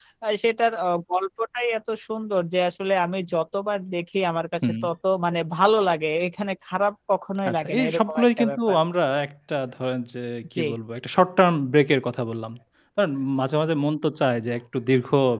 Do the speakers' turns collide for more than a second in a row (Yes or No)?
Yes